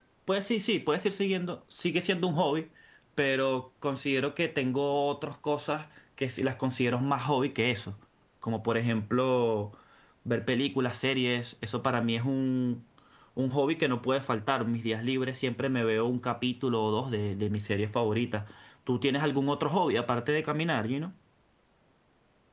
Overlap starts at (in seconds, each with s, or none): none